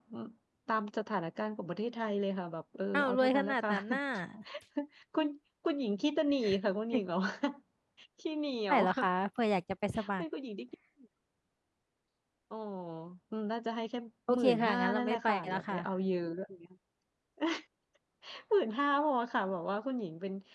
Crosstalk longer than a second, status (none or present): present